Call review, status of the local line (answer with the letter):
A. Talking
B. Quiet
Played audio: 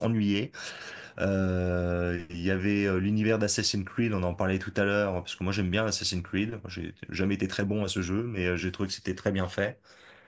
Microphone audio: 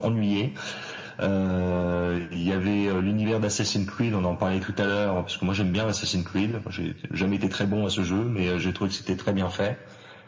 B